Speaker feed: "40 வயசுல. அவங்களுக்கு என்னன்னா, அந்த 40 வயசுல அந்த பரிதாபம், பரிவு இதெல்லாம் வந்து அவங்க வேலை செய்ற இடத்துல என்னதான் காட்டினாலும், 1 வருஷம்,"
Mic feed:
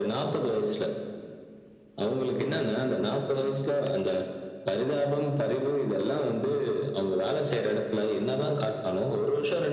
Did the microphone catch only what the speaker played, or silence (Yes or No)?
Yes